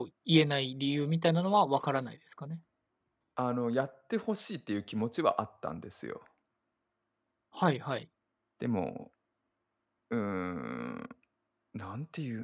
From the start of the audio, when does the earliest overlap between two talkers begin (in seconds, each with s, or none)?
none